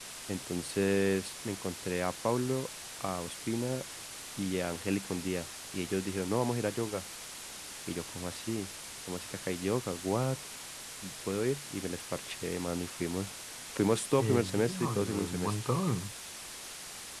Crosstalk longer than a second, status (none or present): present